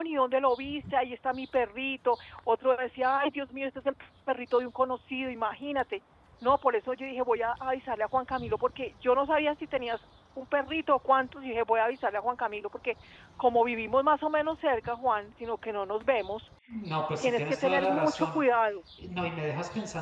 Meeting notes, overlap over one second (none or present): present